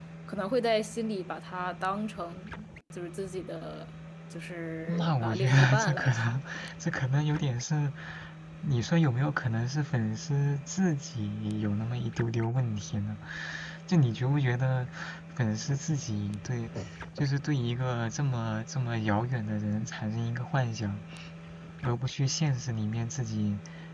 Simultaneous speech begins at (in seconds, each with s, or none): 4.9 s